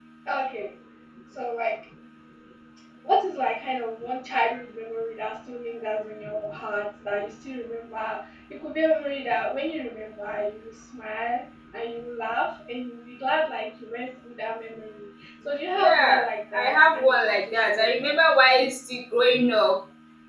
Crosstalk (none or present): present